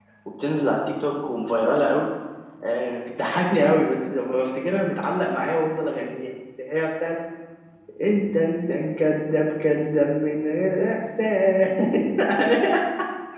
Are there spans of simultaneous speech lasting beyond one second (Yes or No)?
No